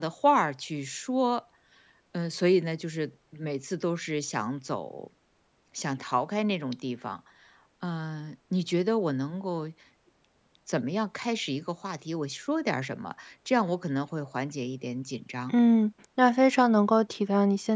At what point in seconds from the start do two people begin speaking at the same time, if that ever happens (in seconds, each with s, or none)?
none